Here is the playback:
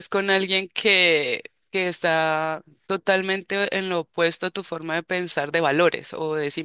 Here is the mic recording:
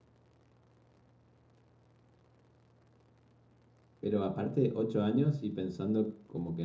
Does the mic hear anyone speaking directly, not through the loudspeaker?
Yes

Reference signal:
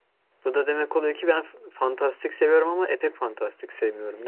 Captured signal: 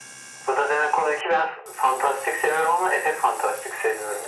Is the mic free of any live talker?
Yes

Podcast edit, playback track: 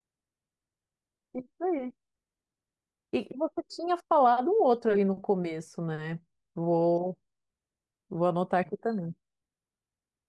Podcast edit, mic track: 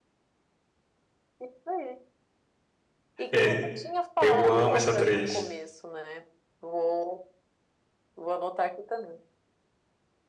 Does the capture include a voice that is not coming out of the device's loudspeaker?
Yes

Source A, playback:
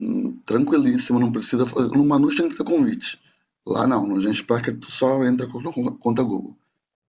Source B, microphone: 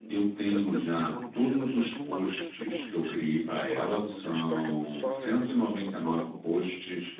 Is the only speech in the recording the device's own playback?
No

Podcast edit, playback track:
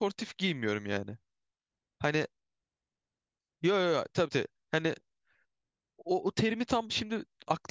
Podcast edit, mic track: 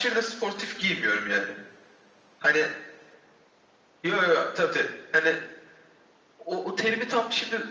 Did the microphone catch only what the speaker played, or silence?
Yes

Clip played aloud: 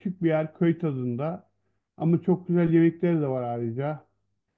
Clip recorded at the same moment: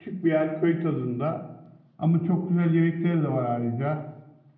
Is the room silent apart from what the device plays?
Yes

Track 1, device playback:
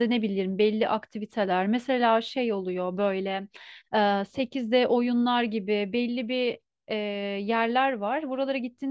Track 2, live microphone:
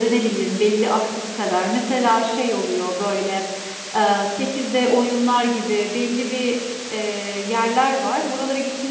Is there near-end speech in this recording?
No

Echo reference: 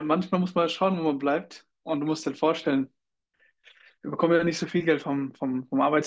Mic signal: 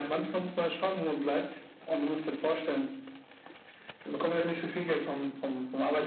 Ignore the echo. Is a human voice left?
No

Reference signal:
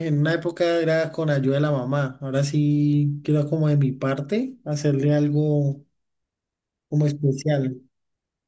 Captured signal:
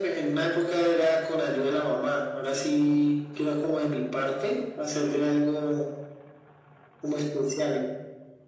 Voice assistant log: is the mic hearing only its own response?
Yes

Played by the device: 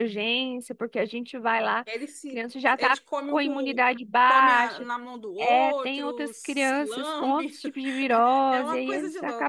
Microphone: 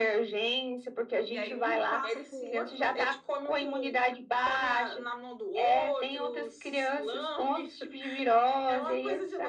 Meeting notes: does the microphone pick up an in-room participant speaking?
Yes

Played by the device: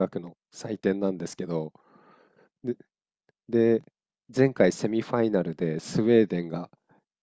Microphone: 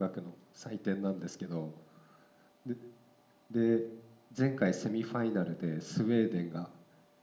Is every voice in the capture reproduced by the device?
Yes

